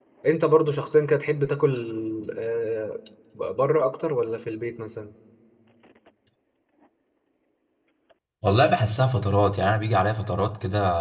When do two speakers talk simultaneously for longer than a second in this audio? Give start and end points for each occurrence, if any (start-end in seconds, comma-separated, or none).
none